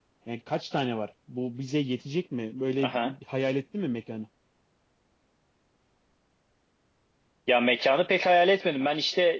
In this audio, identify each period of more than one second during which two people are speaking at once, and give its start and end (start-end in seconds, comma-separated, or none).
none